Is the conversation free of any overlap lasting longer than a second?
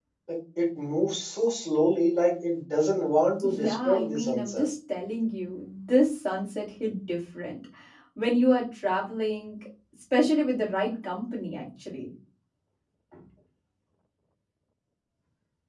No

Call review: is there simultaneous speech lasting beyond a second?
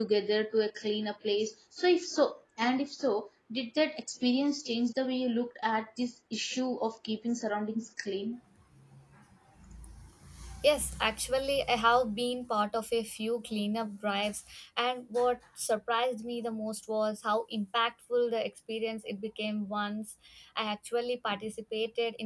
No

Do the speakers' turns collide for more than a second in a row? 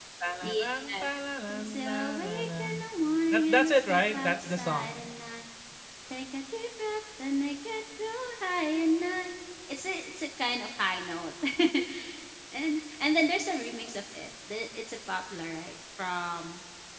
Yes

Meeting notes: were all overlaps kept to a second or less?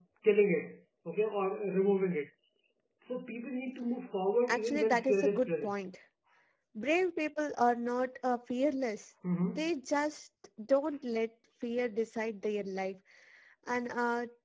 No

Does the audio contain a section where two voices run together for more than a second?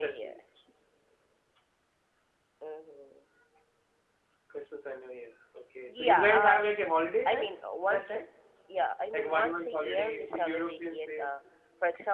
Yes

